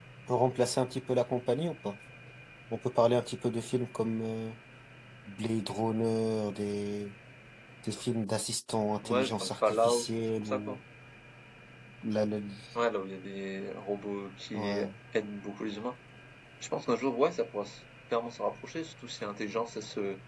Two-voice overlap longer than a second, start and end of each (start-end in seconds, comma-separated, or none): 9.0-10.8